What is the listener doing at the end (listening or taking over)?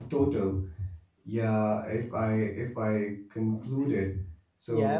listening